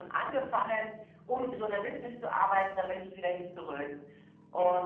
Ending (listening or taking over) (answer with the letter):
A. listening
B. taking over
B